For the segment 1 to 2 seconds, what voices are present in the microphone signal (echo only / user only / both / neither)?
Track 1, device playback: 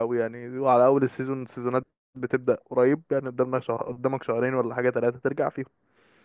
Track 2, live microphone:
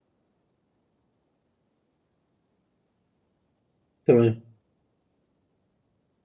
neither